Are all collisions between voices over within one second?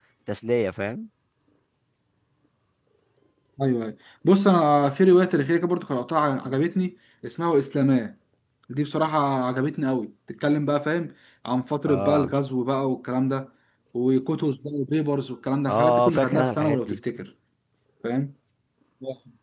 No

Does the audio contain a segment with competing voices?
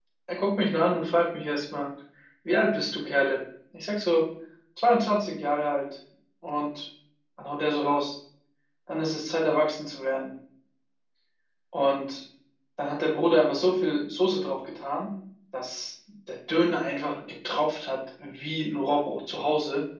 No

